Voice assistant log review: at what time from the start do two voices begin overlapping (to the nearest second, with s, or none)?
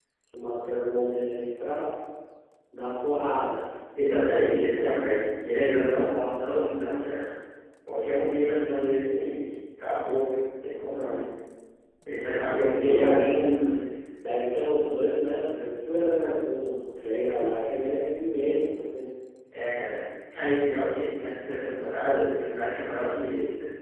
12 s